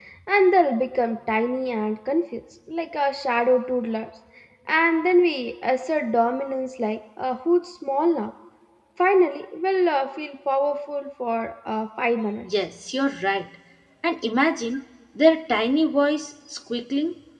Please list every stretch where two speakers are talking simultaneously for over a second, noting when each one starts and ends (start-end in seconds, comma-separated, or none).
none